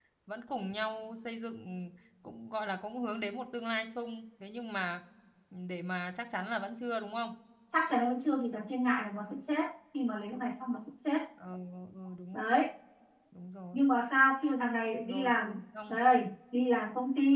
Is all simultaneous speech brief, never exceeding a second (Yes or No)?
Yes